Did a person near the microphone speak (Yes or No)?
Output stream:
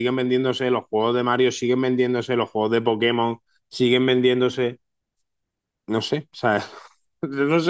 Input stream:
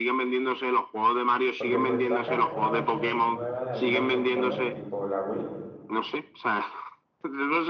Yes